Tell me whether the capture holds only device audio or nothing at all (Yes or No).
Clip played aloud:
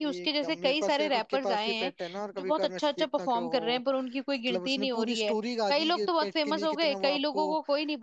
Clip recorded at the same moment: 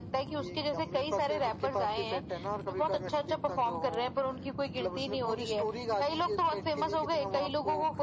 Yes